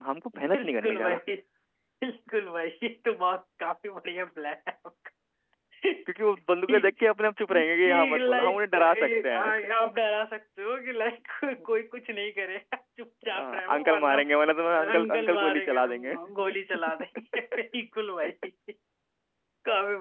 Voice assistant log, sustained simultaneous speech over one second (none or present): present